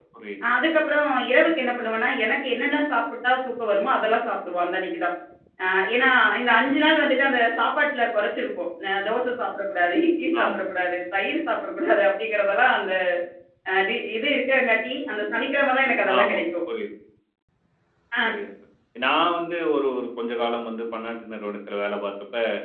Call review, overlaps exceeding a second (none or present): none